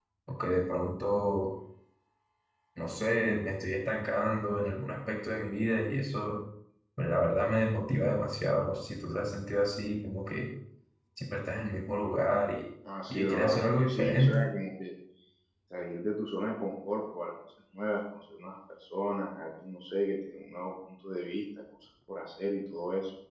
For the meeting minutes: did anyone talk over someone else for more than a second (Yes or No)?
Yes